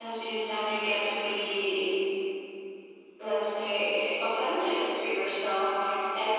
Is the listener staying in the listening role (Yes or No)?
Yes